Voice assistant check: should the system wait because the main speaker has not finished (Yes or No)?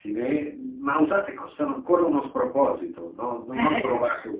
Yes